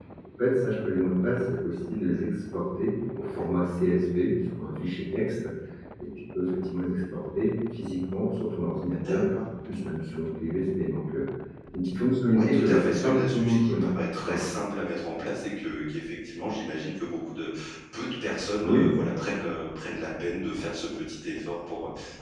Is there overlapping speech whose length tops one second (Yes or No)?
Yes